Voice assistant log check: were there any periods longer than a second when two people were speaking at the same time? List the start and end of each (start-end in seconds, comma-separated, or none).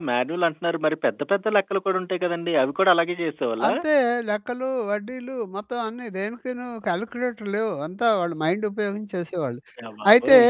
none